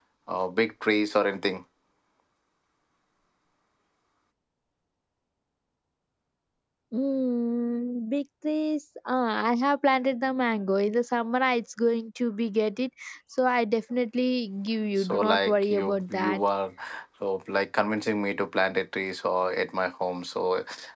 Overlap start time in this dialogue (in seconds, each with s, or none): 15.0 s